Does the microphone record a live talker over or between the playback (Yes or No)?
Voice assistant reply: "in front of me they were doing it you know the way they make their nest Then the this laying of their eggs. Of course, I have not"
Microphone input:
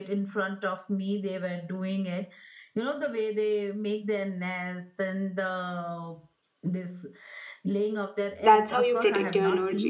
Yes